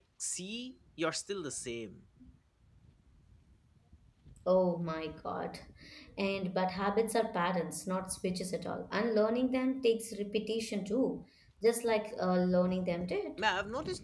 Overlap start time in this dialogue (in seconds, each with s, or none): none